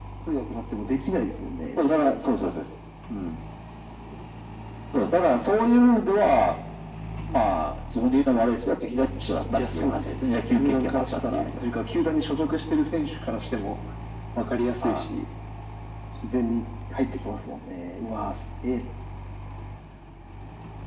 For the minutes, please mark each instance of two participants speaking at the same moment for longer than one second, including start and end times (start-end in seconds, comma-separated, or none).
9.7-11.5